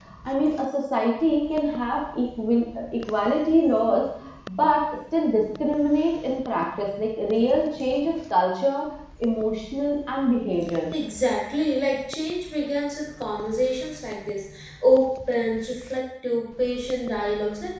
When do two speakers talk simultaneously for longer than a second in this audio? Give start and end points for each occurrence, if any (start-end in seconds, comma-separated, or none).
none